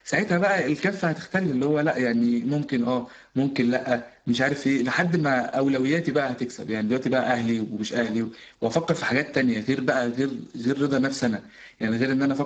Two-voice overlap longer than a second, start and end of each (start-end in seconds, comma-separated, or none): none